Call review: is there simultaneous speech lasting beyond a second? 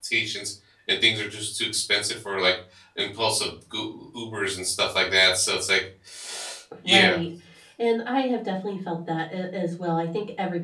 No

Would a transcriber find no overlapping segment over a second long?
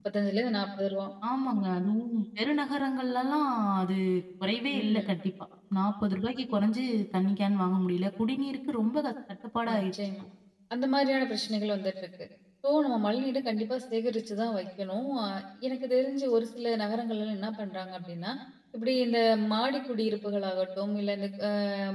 Yes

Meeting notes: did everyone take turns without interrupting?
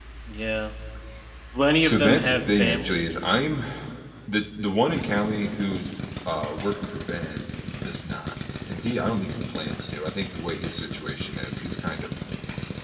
No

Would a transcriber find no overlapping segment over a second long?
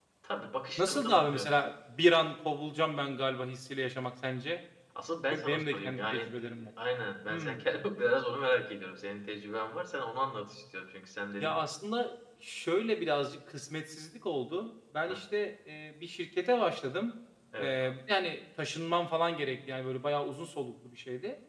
No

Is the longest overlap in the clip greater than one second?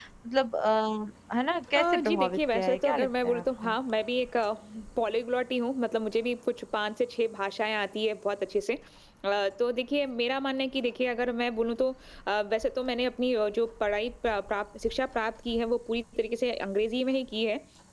Yes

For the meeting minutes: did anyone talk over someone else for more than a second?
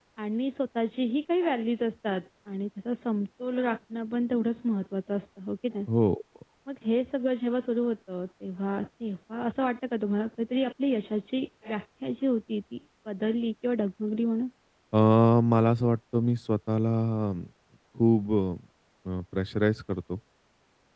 No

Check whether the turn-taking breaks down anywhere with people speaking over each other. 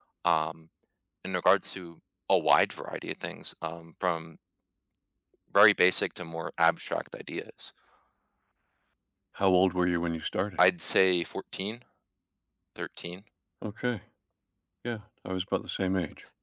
No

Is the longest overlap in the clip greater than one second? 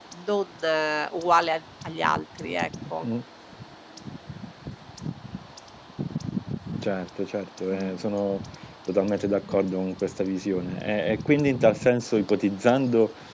No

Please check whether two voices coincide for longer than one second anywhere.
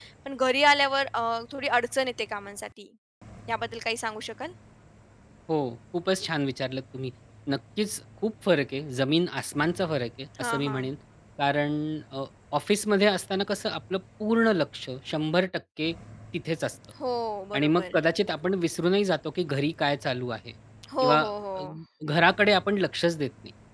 No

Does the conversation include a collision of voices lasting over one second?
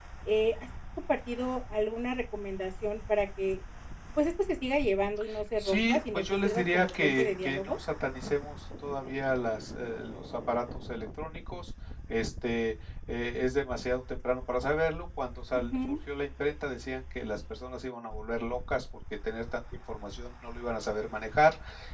Yes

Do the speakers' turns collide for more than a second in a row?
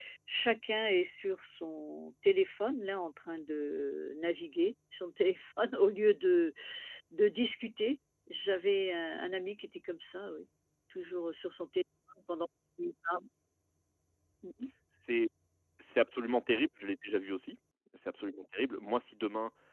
No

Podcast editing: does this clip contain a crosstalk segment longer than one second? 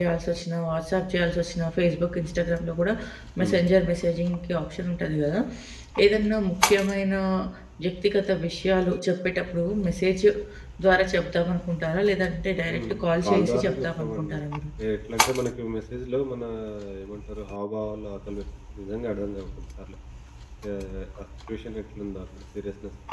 Yes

